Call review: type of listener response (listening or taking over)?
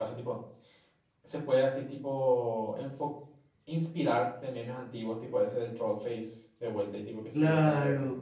taking over